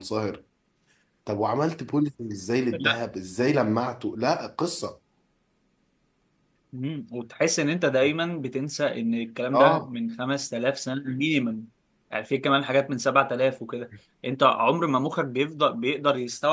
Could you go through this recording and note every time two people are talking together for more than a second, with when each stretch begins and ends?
none

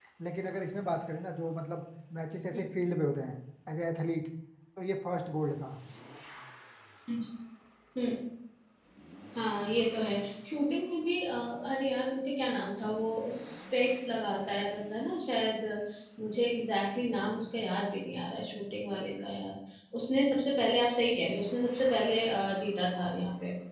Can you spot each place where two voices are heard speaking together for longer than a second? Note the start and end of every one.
none

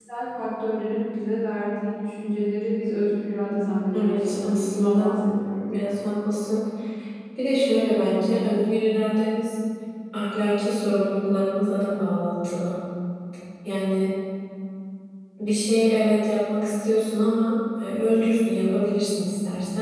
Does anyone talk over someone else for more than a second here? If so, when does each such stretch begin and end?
3.5-5.2

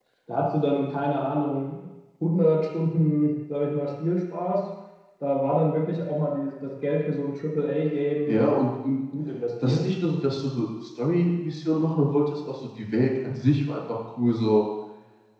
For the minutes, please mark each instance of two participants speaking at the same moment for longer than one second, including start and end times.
none

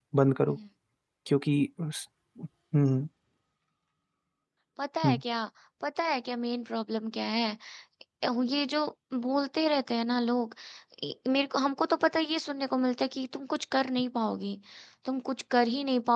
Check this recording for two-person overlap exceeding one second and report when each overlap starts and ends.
none

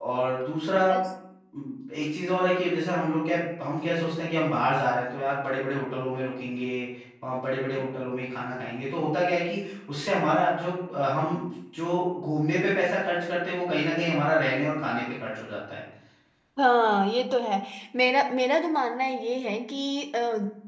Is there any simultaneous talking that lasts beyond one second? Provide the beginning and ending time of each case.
none

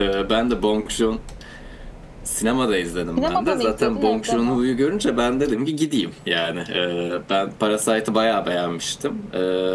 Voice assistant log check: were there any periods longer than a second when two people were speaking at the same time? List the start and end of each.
3.2-4.6

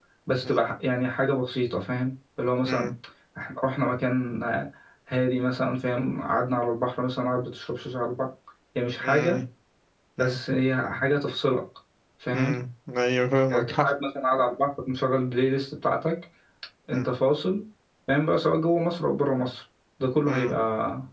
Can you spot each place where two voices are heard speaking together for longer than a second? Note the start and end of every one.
none

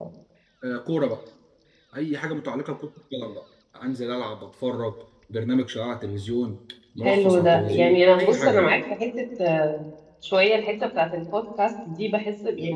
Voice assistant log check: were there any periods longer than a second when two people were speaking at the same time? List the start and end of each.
7.0-8.7

